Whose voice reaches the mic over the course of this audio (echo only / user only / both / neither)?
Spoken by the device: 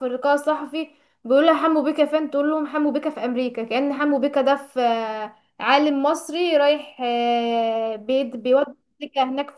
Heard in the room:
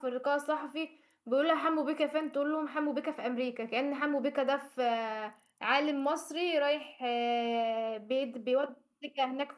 echo only